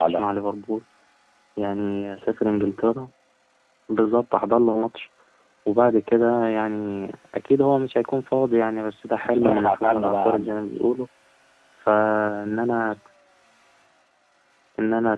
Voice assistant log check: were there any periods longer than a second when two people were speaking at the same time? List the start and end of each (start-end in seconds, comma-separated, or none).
9.2-10.6